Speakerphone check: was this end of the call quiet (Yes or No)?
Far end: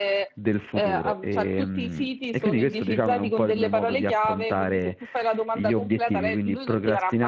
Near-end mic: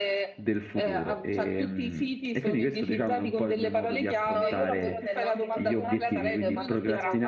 No